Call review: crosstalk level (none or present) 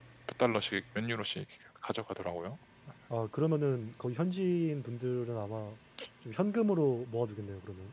none